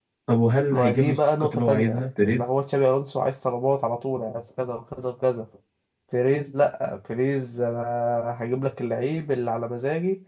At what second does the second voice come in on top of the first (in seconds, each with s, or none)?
0.7 s